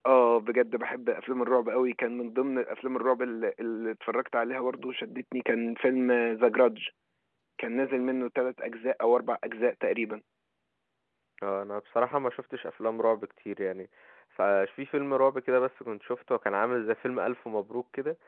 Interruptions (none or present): none